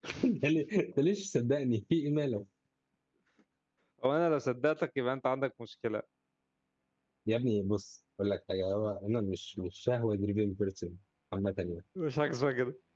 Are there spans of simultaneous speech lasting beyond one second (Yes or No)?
No